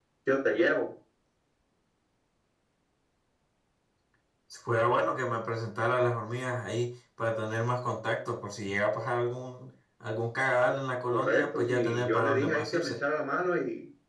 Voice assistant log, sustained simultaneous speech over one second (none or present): present